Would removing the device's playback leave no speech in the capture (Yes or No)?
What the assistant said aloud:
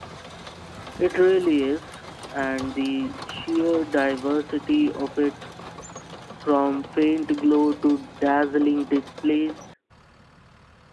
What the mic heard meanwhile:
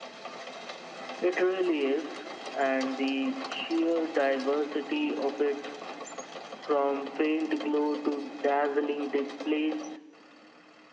Yes